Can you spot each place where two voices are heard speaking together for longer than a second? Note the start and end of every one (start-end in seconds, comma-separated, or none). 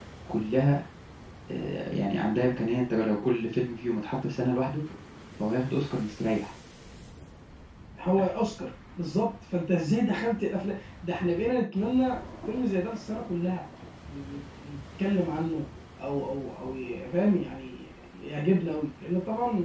none